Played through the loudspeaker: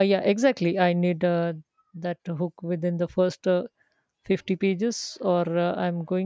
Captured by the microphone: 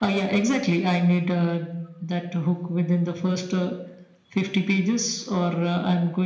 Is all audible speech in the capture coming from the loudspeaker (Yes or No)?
Yes